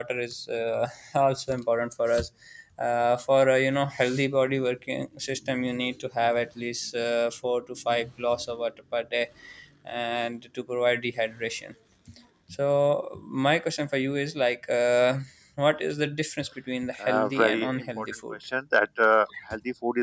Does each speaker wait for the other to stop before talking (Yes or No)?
No